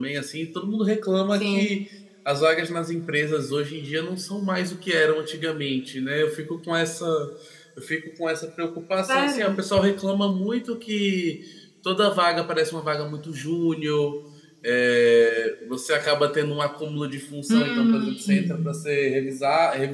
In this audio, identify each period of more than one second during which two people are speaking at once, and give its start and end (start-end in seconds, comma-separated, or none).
17.5-18.8